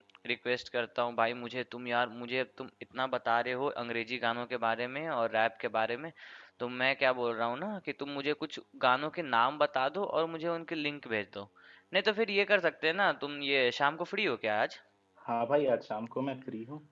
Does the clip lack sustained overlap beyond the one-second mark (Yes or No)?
Yes